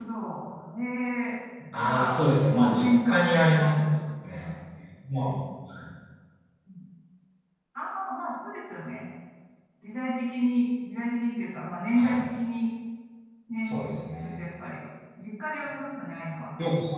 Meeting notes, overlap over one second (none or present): present